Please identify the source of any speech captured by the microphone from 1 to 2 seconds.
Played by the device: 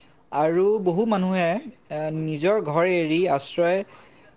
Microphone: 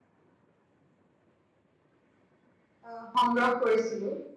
neither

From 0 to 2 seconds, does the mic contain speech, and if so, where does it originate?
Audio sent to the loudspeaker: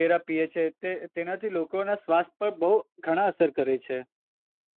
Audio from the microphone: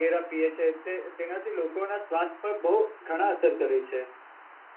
echo only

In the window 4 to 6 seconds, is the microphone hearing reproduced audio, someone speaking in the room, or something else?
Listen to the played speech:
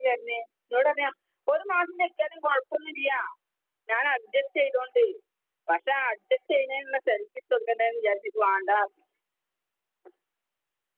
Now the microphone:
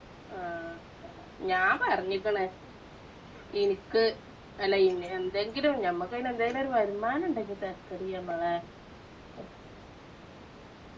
user only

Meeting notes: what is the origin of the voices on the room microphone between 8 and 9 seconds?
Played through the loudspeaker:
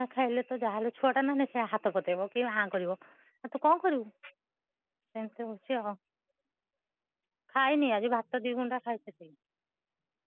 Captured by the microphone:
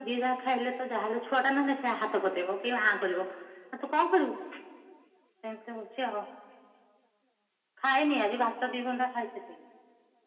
echo only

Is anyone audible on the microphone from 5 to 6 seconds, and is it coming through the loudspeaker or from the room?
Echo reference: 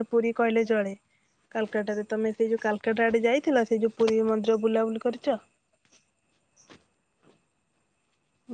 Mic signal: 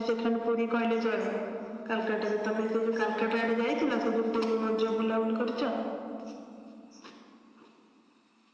echo only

